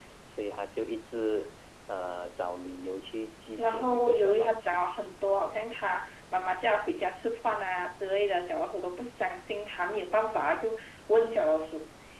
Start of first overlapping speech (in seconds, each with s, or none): 3.6 s